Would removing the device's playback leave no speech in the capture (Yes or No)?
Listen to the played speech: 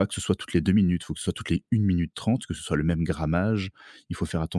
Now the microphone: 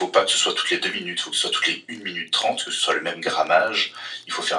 Yes